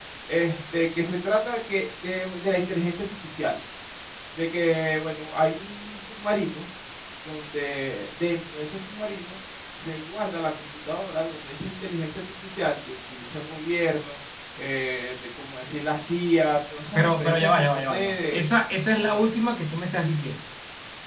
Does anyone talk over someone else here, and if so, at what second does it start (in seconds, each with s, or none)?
17.0 s